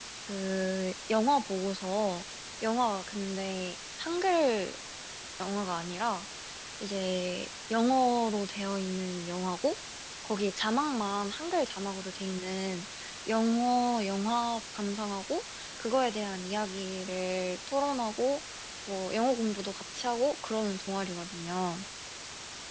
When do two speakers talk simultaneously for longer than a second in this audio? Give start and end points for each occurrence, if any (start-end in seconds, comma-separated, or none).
none